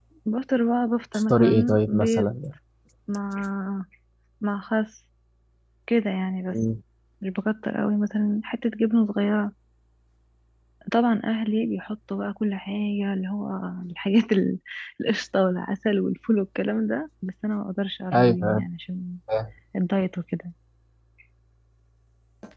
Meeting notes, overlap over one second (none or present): present